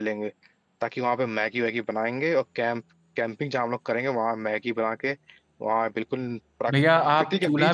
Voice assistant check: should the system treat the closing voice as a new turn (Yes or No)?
Yes